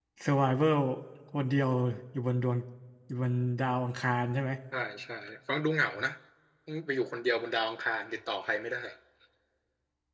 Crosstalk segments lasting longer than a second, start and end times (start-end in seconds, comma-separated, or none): none